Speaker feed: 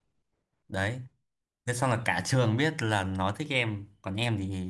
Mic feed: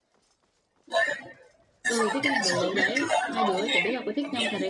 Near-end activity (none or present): present